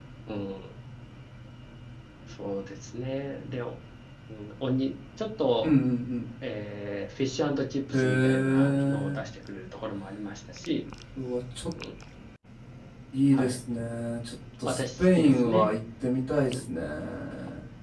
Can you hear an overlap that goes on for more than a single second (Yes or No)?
Yes